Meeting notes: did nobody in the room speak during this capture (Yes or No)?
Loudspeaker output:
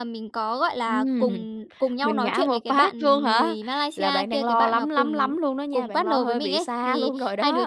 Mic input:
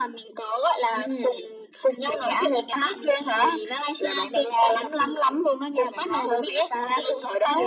Yes